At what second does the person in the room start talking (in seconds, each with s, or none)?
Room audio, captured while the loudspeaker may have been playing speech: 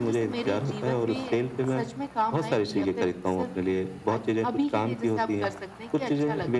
none